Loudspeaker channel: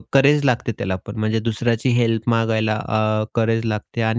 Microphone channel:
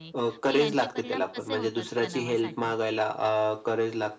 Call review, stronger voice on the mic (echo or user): echo